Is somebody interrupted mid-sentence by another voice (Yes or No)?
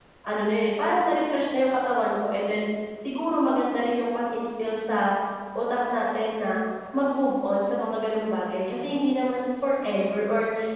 No